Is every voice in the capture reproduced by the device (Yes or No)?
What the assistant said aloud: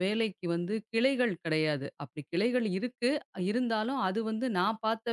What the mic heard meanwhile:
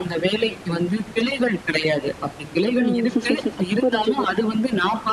No